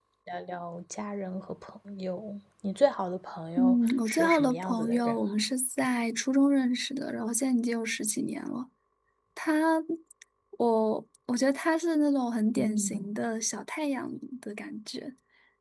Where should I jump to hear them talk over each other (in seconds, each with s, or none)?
3.6 s